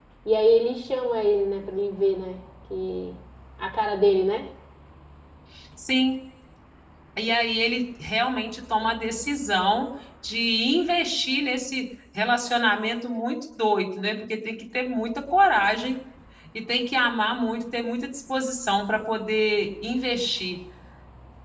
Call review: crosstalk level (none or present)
none